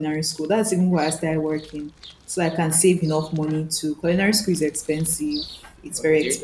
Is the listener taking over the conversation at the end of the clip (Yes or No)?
No